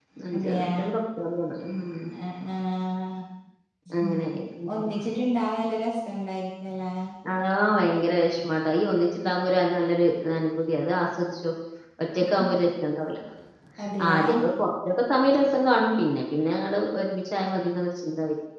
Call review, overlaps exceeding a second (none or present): none